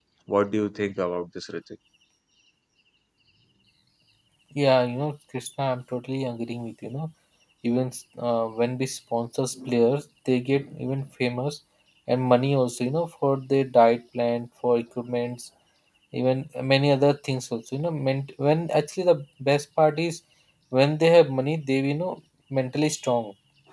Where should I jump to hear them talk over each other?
none

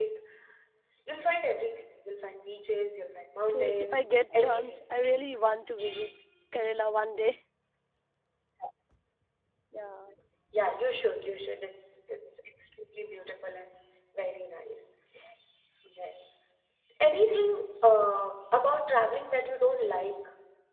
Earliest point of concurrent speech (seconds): 3.5 s

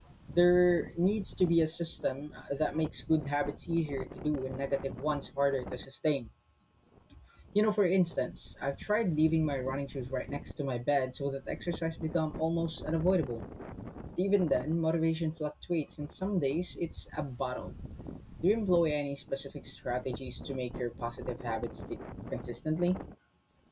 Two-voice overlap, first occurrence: none

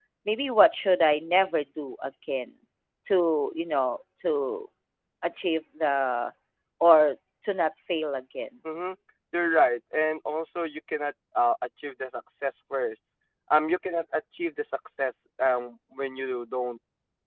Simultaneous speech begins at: none

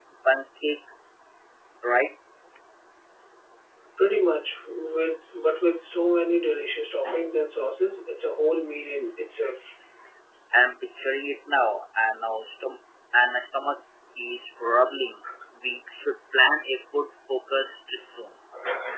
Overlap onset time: none

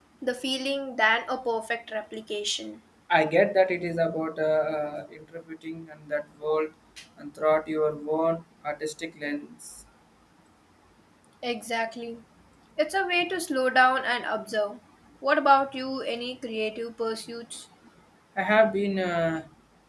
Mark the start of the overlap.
none

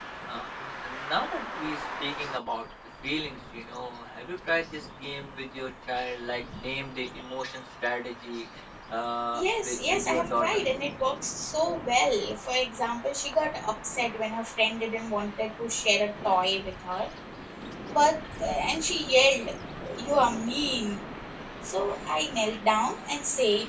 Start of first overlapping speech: 9.3 s

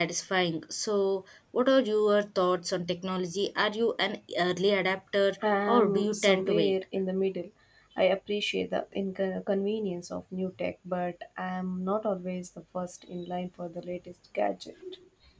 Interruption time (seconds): 5.4 s

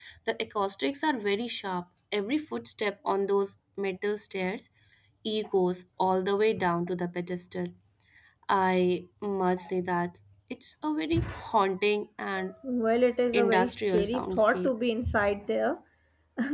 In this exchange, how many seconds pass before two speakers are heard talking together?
13.3 s

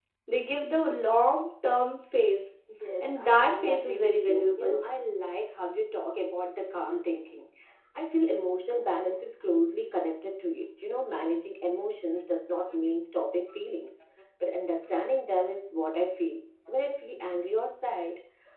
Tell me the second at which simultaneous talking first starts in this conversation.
3.0 s

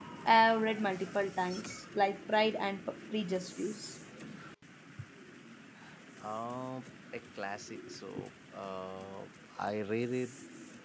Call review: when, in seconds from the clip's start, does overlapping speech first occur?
none

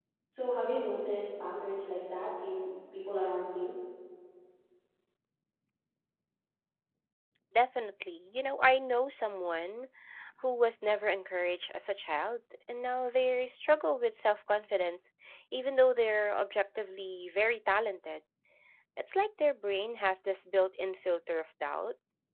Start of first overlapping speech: none

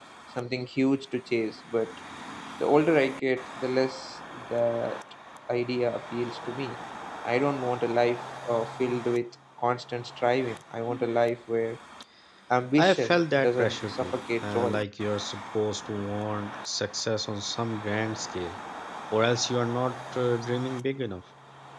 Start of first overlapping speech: 12.8 s

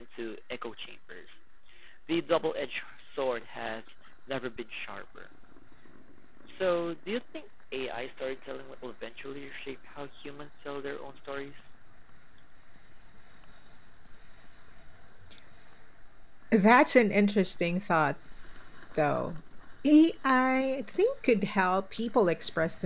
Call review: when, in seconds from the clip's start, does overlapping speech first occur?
none

